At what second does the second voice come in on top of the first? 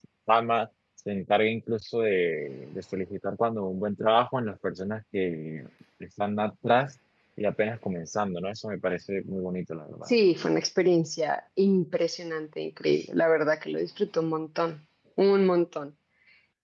none

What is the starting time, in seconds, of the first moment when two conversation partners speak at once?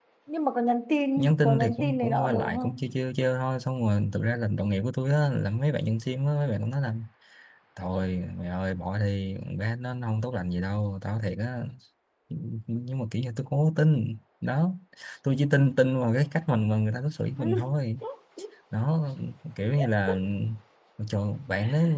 1.2 s

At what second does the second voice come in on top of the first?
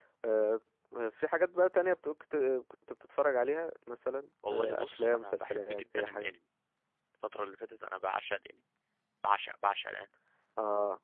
4.4 s

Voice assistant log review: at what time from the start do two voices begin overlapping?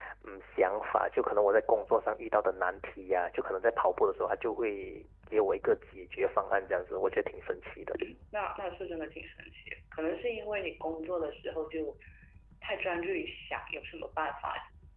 none

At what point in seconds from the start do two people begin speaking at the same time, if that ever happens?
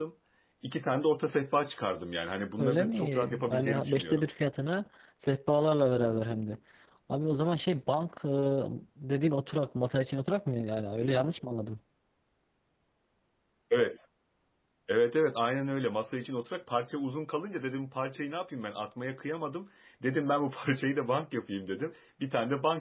2.6 s

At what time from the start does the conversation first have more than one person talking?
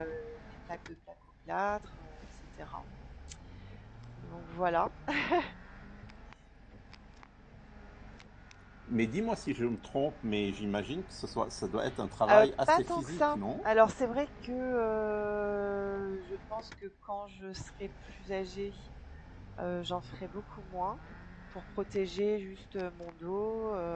12.3 s

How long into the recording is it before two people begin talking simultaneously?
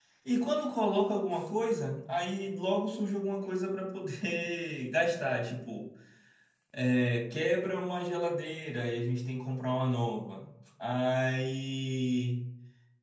none

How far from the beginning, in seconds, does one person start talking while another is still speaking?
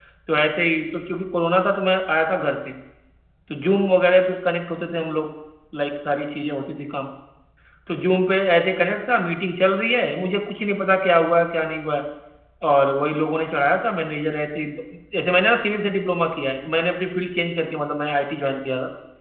none

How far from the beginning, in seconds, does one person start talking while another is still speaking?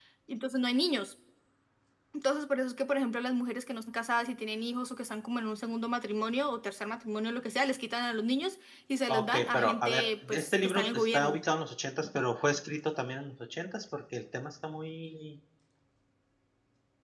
9.1 s

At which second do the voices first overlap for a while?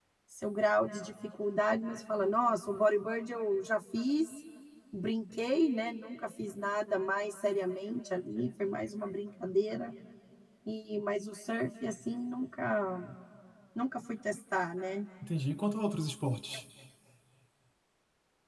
none

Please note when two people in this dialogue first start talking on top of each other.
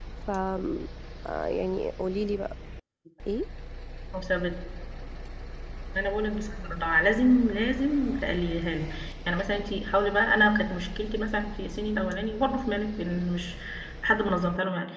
none

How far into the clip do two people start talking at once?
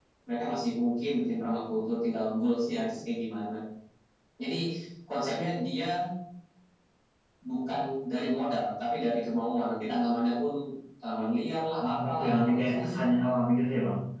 11.8 s

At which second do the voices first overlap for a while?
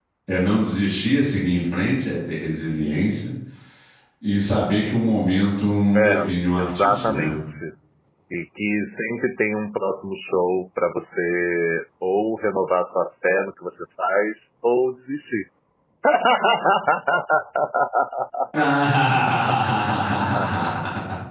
5.9 s

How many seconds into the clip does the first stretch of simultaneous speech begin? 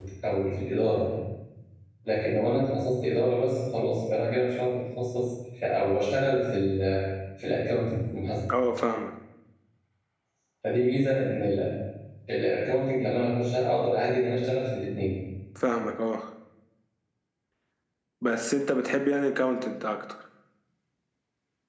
none

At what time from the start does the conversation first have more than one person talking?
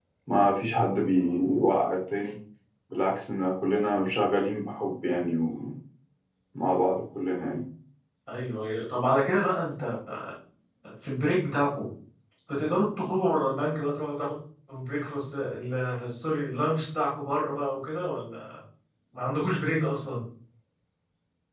none

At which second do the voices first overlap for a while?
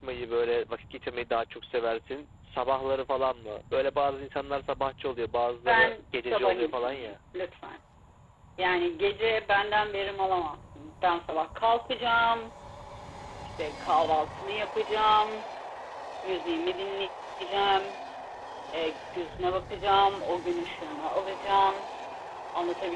5.7 s

